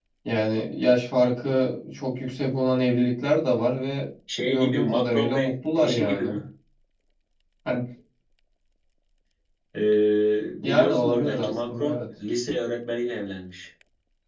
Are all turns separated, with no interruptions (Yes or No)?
No